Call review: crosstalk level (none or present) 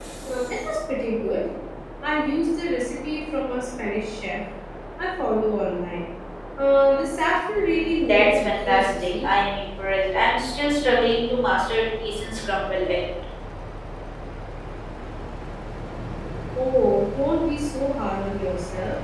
present